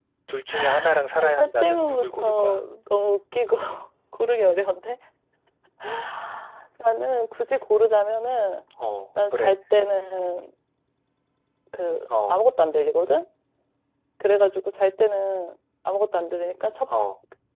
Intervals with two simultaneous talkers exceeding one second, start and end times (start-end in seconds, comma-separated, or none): 1.2-2.6